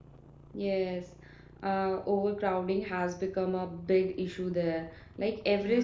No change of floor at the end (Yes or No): Yes